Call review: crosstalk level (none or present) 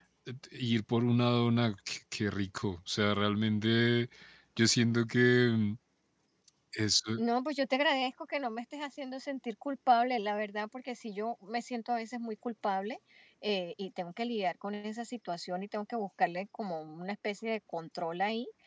none